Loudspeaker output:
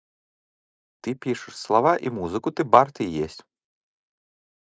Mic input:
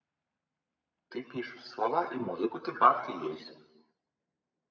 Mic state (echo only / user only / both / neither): echo only